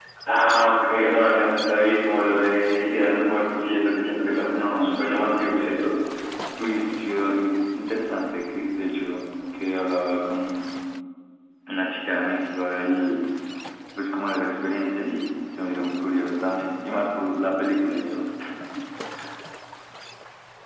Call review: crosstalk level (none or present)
present